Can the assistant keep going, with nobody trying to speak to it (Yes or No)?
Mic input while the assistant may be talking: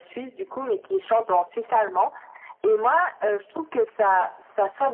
Yes